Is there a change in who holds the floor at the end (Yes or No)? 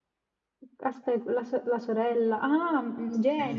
Yes